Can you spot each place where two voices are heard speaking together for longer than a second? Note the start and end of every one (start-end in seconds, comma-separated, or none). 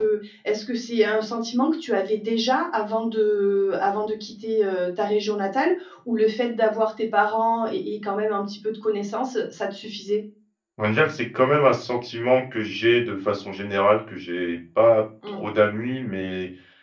none